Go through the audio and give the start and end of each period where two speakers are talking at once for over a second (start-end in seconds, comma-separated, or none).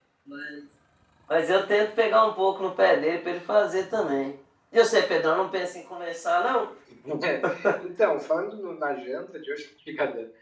none